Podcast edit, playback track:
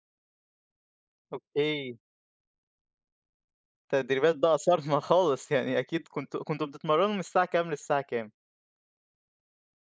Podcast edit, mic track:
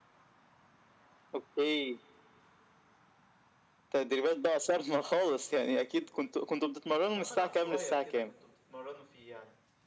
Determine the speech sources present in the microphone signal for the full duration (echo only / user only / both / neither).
both